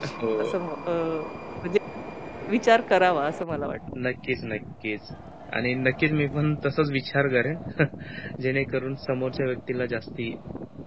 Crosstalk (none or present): none